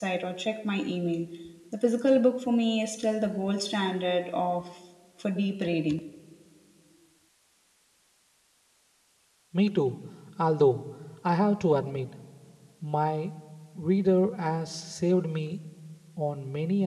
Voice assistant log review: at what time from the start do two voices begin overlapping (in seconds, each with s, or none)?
none